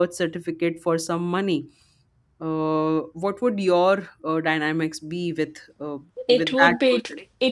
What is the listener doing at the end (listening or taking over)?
taking over